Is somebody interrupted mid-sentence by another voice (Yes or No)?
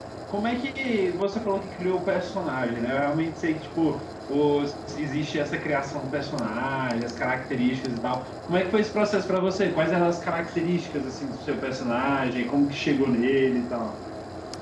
No